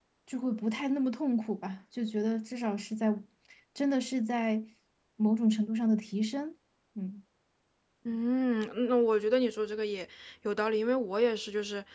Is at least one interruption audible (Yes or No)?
No